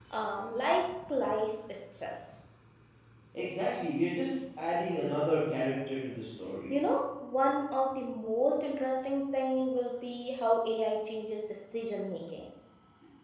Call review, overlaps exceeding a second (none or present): none